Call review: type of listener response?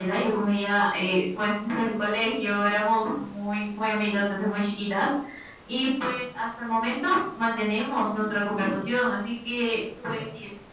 listening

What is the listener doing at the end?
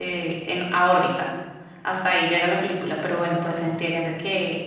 listening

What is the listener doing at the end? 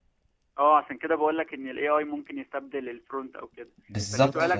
listening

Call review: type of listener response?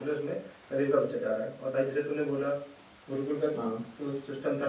listening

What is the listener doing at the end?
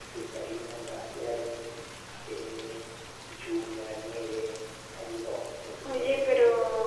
taking over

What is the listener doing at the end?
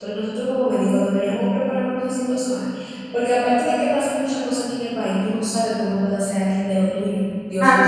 taking over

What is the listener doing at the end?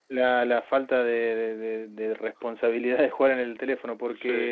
listening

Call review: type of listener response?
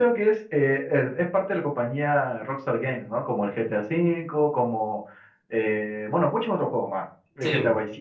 listening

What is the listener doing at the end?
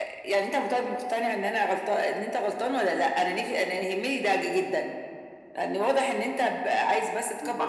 taking over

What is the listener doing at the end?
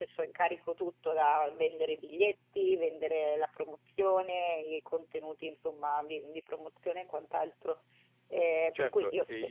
taking over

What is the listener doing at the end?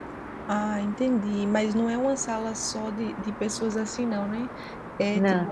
listening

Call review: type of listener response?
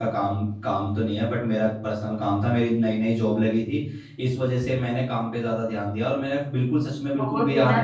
taking over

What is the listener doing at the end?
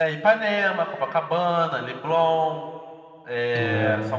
listening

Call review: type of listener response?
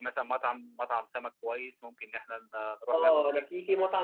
taking over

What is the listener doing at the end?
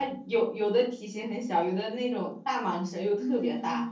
taking over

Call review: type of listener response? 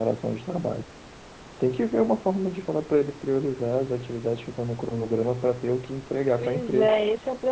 taking over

